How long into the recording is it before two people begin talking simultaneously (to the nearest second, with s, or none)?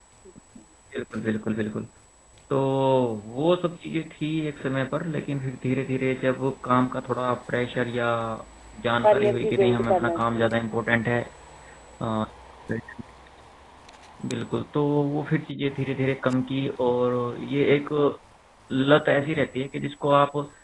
9 s